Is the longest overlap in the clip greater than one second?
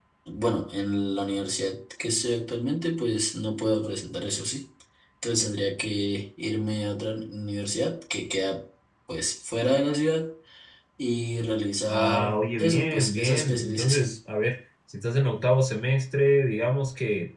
Yes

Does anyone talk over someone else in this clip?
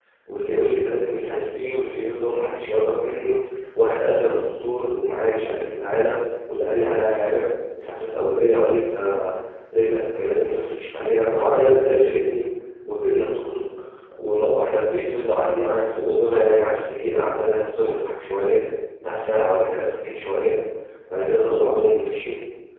No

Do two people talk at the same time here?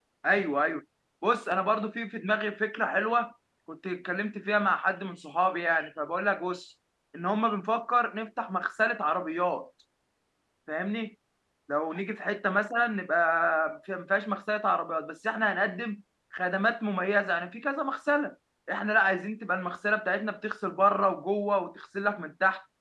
No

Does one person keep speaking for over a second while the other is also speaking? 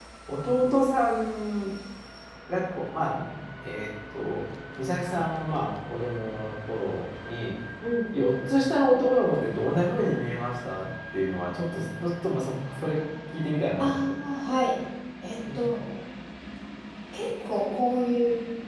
No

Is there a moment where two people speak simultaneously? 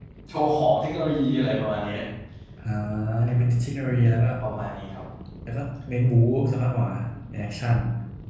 No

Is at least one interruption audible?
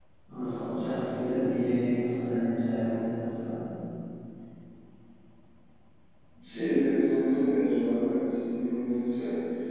No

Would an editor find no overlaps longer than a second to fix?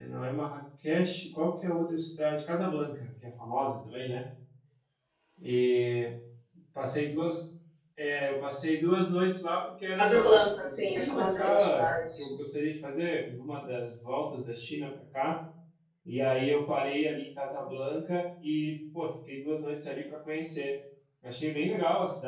No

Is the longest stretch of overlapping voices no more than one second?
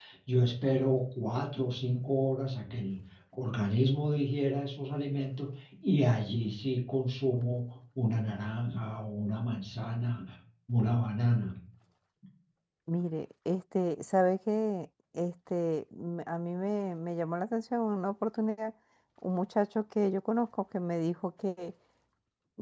Yes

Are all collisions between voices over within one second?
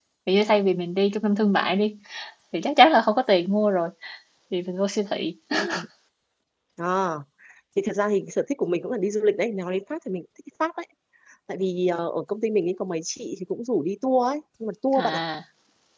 Yes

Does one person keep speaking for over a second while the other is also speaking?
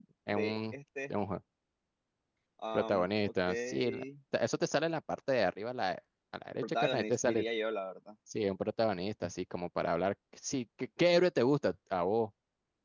Yes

